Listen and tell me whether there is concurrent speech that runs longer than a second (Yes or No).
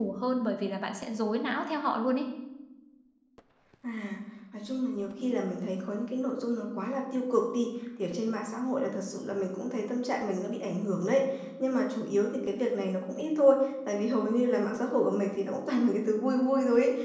No